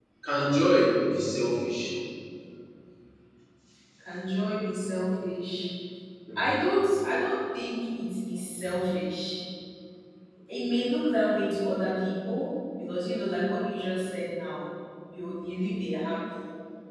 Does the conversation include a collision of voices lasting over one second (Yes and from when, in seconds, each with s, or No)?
No